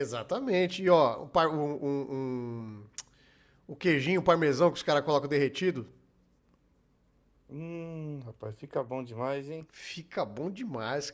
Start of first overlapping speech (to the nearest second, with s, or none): none